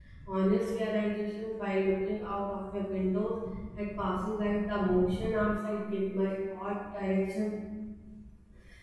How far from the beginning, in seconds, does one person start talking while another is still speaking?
none

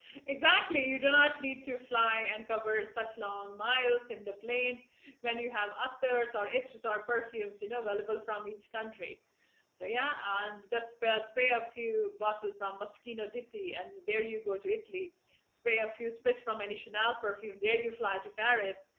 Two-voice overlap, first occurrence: none

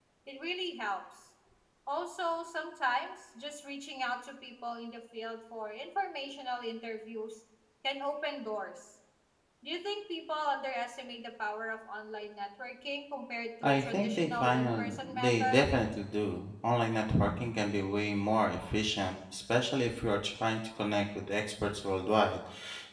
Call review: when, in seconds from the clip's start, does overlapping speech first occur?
13.6 s

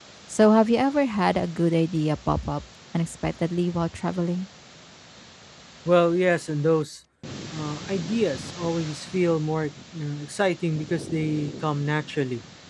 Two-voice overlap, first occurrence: none

